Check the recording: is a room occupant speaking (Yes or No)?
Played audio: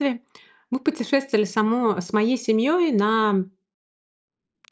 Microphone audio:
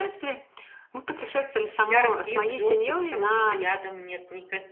Yes